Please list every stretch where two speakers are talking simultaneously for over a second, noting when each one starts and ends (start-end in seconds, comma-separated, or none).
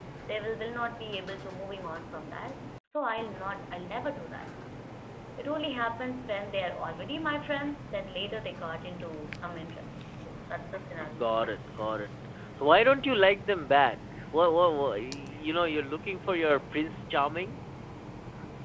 none